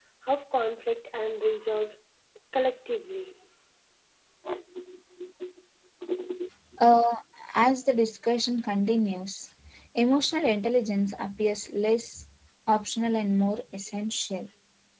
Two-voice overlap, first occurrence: none

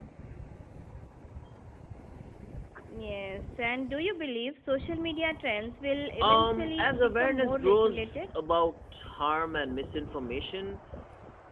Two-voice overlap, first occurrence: 6.2 s

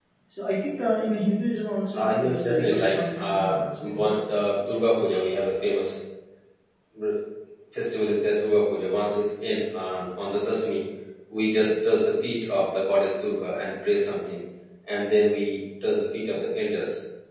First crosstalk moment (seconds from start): 2.0 s

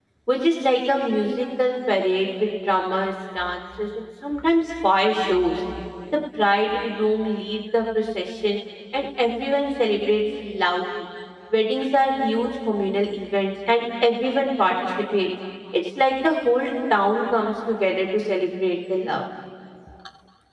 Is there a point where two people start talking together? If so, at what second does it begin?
none

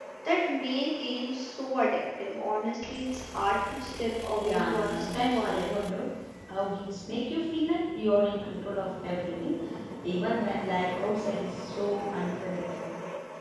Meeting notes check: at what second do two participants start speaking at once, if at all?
4.4 s

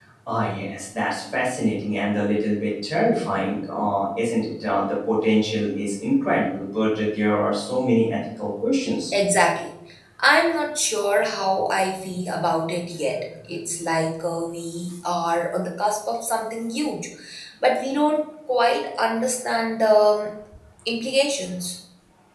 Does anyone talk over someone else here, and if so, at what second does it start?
none

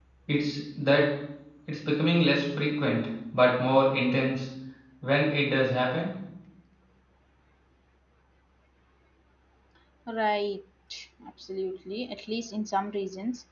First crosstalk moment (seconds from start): none

